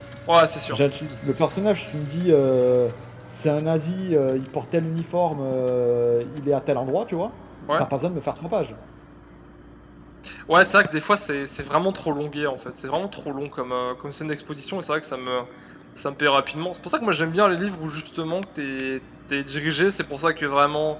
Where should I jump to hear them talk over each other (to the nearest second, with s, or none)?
none